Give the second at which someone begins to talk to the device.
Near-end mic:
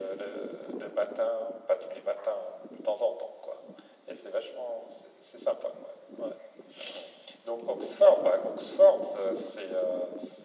none

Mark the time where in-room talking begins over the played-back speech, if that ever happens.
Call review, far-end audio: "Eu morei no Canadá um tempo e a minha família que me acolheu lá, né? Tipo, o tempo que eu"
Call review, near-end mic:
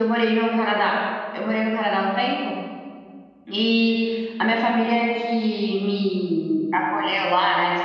none

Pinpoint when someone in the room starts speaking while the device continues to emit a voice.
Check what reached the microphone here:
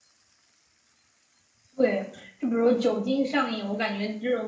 1.8 s

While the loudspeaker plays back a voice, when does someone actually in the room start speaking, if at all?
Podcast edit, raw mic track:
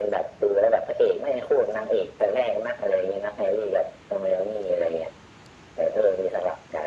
none

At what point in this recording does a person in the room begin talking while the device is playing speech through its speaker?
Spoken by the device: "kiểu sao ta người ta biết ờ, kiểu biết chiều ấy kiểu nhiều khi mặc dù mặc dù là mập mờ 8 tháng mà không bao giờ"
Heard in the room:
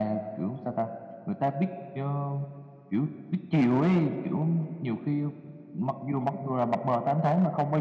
none

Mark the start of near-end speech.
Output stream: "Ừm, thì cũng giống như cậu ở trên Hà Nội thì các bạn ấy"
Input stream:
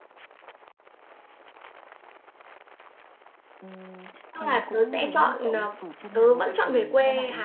4.3 s

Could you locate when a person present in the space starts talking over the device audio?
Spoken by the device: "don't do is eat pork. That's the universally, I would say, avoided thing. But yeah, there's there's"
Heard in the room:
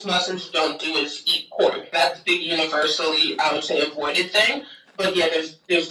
none

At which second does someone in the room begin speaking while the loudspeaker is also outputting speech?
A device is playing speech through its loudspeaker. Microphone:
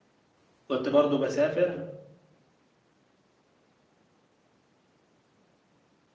0.7 s

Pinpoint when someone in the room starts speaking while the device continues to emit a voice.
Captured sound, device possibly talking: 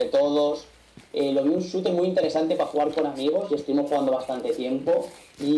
none

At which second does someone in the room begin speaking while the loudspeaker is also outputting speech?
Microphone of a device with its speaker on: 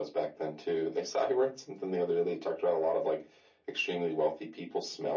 none

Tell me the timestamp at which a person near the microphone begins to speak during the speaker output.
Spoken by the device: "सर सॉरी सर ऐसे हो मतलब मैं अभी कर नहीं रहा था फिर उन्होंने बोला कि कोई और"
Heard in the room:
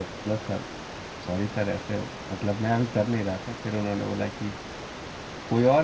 none

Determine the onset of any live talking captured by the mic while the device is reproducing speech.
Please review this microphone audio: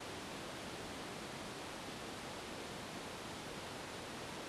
none

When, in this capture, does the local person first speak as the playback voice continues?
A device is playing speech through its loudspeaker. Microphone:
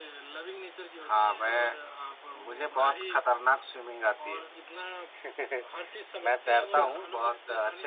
6.5 s

